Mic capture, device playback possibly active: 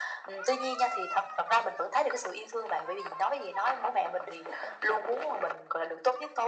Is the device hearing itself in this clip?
Yes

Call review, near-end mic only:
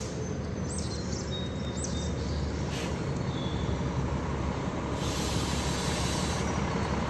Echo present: No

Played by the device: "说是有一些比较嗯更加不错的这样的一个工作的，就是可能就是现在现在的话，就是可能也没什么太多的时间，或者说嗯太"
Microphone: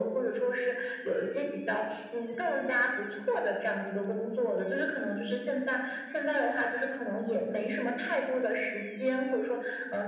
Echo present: Yes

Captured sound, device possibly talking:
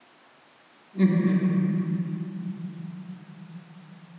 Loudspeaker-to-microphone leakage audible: No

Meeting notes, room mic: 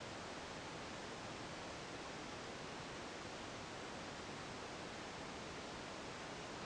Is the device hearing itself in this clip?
No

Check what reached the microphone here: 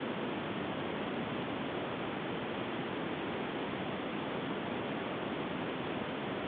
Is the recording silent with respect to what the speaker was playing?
Yes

